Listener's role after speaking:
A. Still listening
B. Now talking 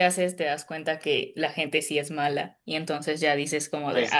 B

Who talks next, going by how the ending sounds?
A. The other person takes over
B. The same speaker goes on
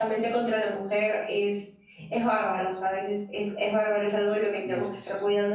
B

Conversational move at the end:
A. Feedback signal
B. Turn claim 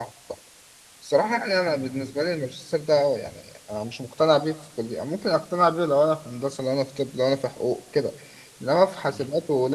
A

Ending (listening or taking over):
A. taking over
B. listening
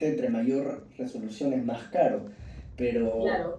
B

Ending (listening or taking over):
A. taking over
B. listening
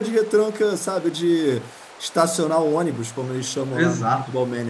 A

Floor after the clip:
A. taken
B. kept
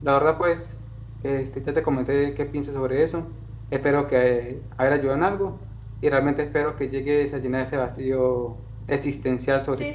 A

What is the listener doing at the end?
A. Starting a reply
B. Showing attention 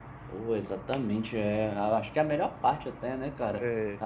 B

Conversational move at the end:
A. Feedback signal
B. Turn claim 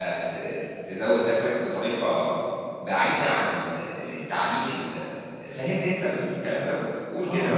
B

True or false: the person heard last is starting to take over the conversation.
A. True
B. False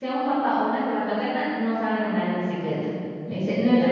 B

